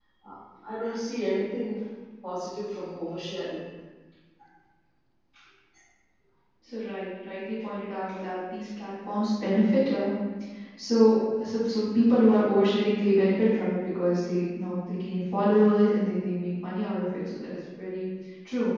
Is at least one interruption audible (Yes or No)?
No